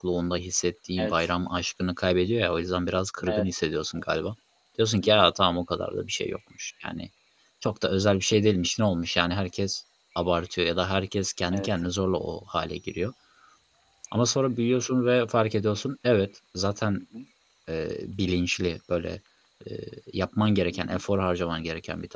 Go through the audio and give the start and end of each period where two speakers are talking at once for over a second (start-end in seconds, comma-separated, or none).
none